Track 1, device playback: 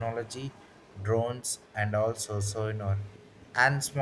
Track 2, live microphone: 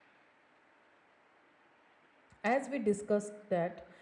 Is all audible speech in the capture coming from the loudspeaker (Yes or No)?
No